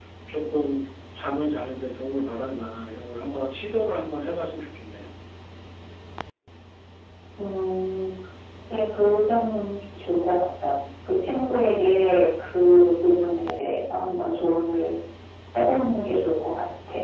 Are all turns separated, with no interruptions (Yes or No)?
Yes